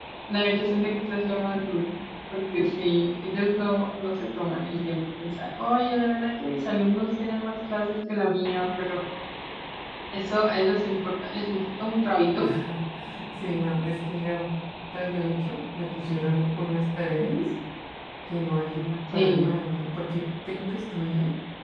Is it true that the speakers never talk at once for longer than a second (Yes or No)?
Yes